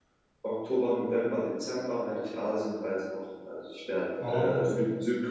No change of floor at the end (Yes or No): Yes